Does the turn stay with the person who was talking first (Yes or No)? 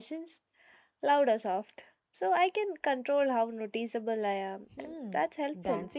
No